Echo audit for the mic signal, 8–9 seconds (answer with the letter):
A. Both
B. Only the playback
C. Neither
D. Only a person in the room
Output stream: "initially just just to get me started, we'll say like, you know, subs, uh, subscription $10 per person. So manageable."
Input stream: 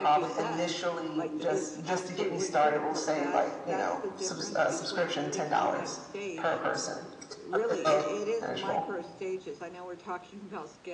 A